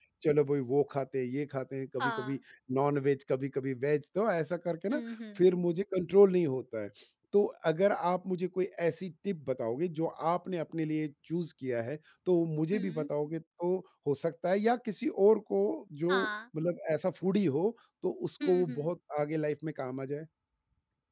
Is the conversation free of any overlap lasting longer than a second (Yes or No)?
Yes